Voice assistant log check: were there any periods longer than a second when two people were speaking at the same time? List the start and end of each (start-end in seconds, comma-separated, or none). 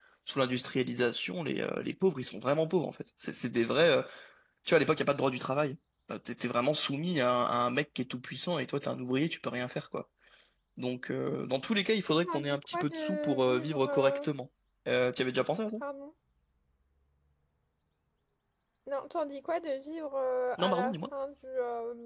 12.2-14.3